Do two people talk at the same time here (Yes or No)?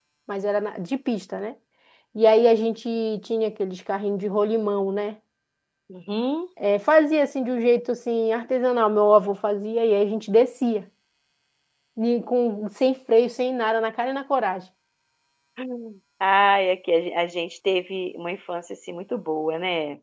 No